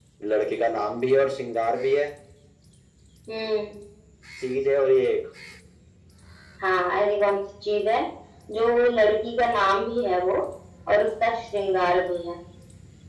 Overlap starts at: none

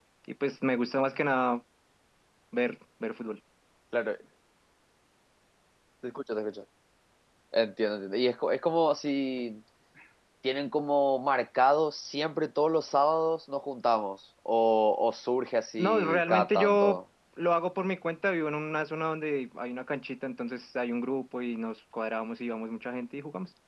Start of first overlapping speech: 15.8 s

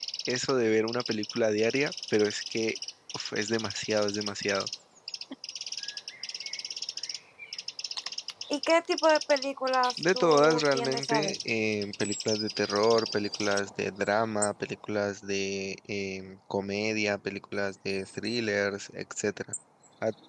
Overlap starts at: 10.0 s

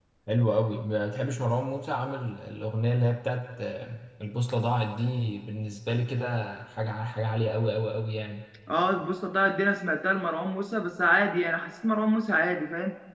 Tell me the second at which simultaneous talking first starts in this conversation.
none

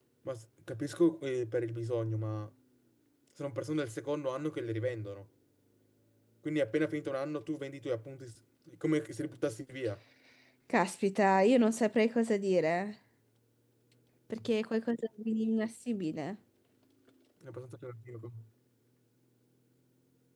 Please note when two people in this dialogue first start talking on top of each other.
none

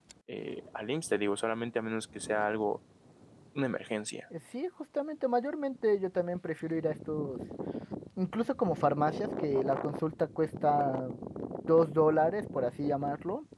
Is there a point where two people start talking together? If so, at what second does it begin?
none

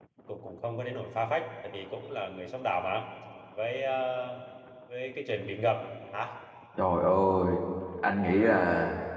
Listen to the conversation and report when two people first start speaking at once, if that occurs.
none

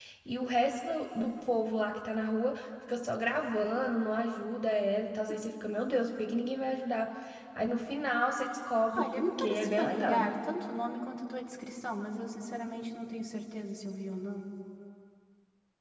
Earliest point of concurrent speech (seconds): 8.9 s

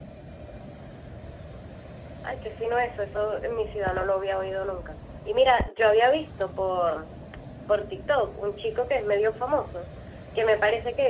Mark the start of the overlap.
none

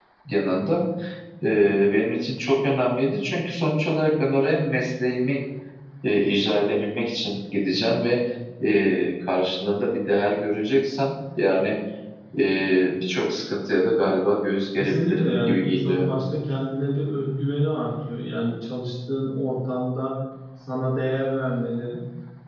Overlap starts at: 14.8 s

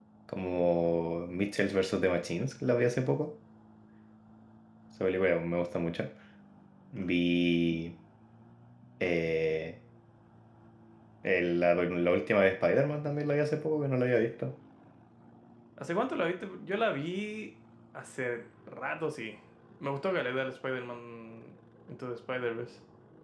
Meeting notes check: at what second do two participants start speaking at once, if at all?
none

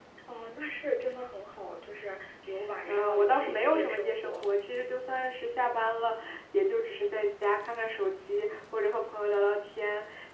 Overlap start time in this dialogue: 2.9 s

